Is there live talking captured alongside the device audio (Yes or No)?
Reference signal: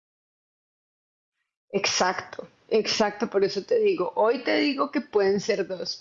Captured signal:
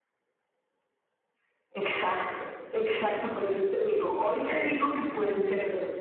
No